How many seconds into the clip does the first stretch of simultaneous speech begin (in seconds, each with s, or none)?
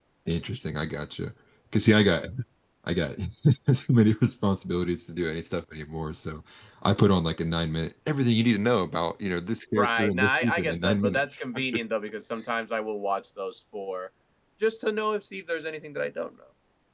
9.8 s